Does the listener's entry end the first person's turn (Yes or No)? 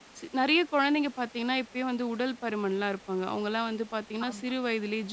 No